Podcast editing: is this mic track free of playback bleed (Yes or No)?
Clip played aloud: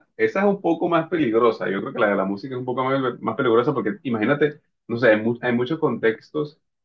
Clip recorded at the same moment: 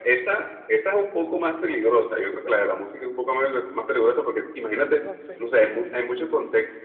No